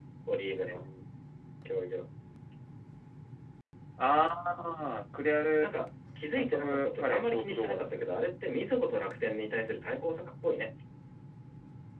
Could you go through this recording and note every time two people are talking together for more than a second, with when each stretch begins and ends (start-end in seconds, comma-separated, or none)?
6.4-8.1